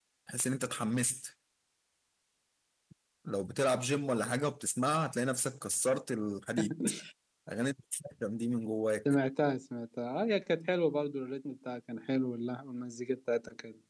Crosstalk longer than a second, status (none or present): none